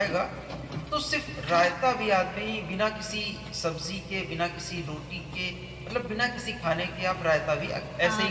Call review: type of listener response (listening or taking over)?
taking over